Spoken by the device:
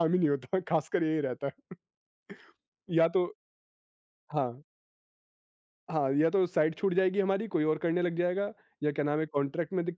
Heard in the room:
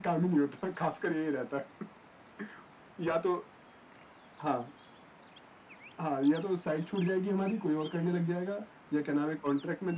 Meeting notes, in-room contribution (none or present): none